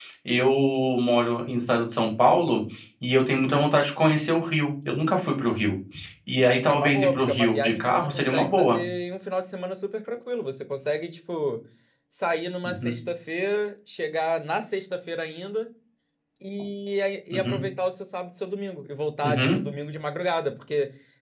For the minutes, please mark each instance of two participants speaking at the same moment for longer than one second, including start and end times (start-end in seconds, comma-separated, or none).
6.7-8.8